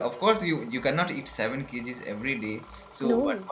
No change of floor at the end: Yes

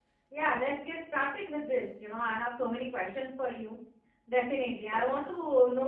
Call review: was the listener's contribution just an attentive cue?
Yes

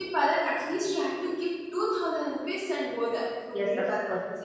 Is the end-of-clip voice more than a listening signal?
Yes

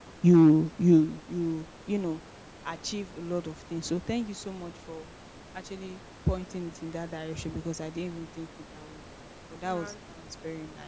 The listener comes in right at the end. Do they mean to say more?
No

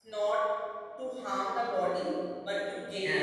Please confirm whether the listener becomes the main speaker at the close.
No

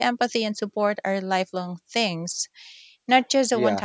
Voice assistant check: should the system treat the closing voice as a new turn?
Yes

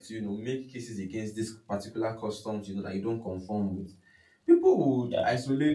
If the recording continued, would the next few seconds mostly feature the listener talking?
No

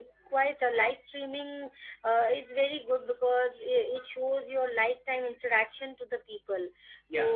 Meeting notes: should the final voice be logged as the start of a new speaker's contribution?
No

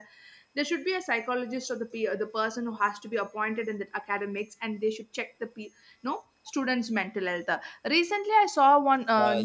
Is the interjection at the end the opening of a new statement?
No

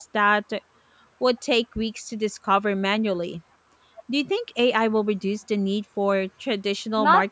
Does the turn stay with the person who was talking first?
No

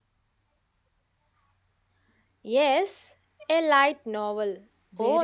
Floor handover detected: Yes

